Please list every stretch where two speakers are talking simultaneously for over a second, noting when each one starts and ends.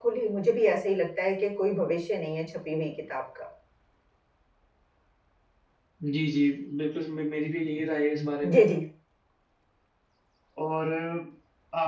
none

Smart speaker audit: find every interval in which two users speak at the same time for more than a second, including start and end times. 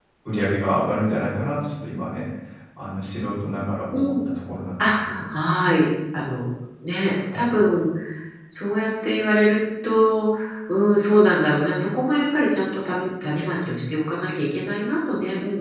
none

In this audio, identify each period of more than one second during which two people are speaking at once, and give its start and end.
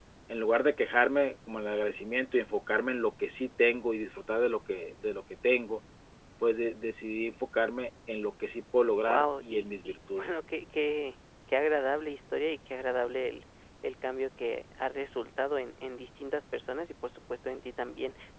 9.1-10.4

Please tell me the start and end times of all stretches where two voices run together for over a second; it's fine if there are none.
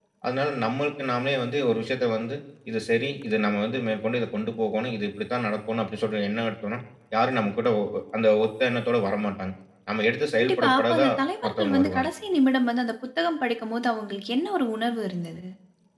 10.4-12.1

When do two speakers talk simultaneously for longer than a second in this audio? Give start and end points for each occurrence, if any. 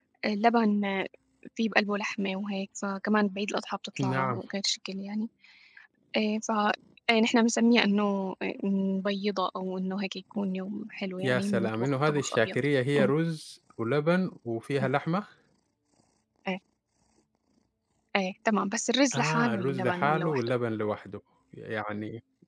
11.2-12.6, 19.1-20.5

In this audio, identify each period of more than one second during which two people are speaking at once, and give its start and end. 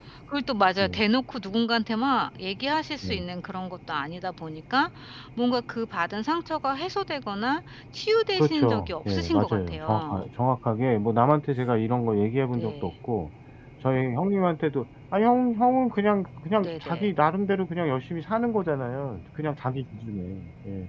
8.4-10.2

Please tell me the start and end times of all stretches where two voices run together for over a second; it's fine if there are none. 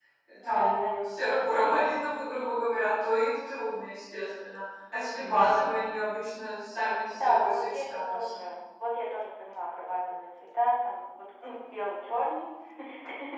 7.2-8.4

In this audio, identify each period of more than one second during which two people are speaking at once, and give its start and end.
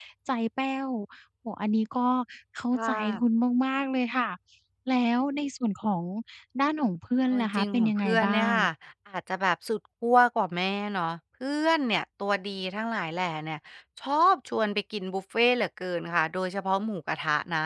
7.3-8.5

